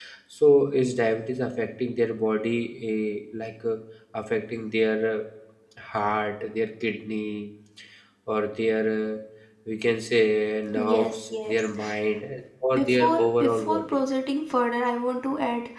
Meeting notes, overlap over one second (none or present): present